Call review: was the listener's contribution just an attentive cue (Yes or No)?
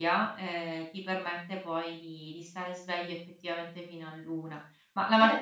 No